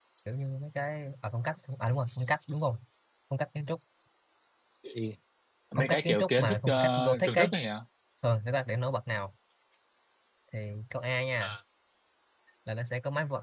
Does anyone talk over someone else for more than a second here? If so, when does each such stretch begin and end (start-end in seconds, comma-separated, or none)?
5.8-7.5